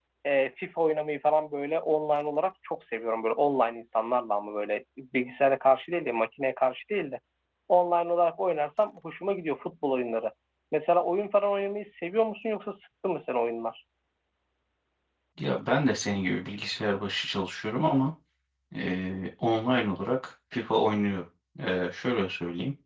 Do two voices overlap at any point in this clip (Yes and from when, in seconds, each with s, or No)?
No